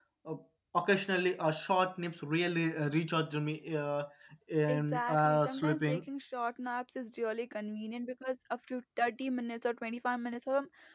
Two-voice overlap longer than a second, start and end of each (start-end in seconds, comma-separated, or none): 4.7-6.0